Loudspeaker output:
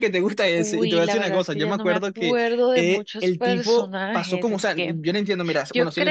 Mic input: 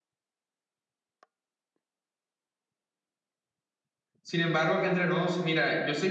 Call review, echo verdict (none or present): none